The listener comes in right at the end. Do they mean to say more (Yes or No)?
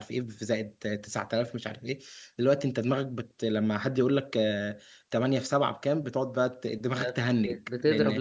Yes